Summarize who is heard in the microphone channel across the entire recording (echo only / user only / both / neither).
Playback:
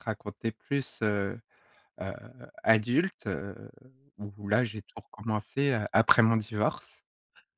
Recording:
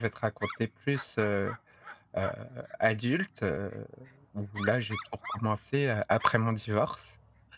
echo only